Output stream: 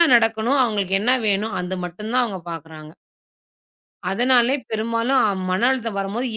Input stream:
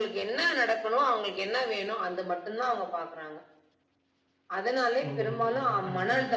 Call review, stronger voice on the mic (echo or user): echo